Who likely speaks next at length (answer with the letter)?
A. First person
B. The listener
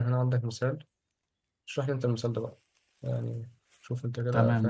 B